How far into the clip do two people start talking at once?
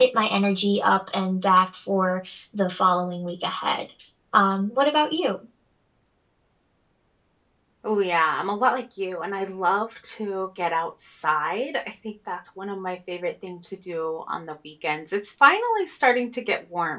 none

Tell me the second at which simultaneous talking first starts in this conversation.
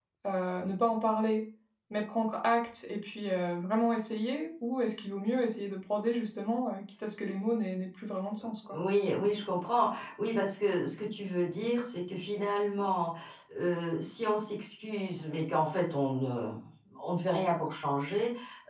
none

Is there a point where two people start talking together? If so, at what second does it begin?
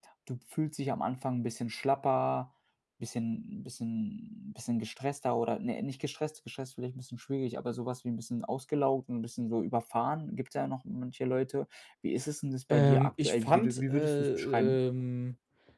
12.7 s

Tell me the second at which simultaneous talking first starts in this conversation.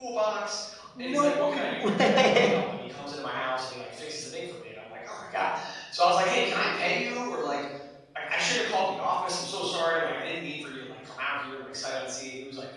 1.0 s

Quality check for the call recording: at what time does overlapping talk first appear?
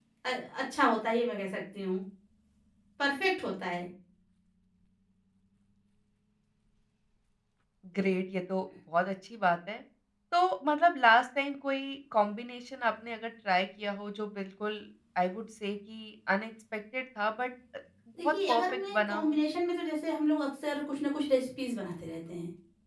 18.2 s

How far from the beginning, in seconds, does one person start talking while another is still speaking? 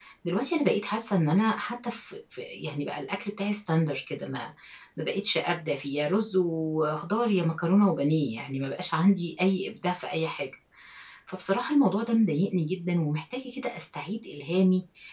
none

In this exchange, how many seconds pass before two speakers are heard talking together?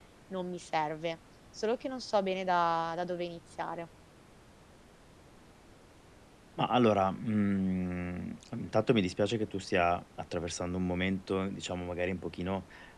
none

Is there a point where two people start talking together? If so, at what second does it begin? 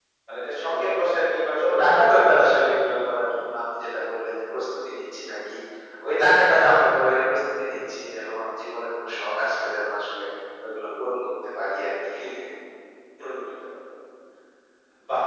0.7 s

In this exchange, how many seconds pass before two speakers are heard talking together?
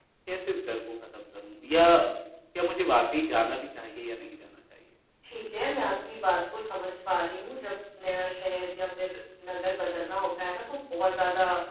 none

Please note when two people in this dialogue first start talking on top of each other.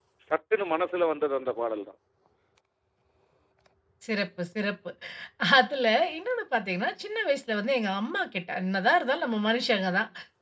none

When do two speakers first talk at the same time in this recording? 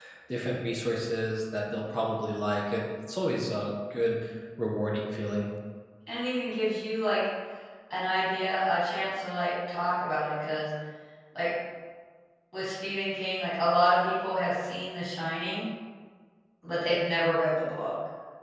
none

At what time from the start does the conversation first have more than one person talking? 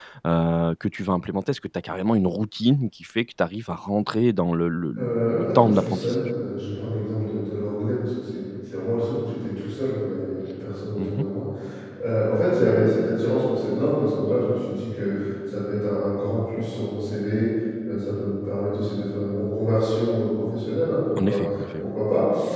5.0 s

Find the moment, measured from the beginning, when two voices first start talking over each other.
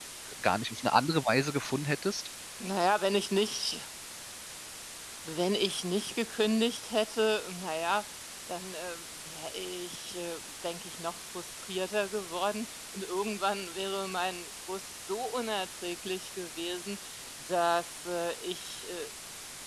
none

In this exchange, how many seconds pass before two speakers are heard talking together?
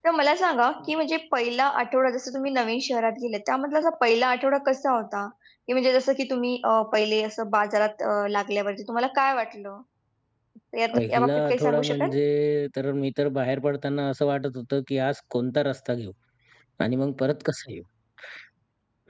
10.9 s

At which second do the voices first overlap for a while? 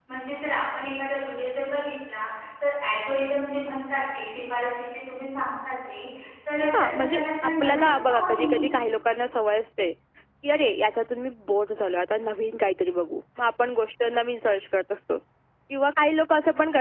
6.6 s

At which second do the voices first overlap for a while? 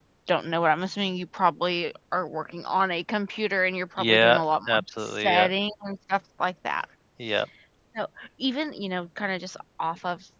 4.0 s

